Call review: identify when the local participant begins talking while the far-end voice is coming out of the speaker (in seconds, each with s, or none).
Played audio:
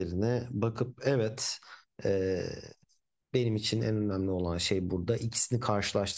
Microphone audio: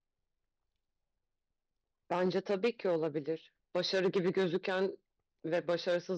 2.1 s